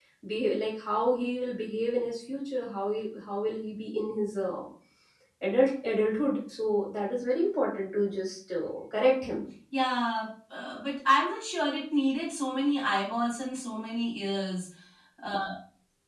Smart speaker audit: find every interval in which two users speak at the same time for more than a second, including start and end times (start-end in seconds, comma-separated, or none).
none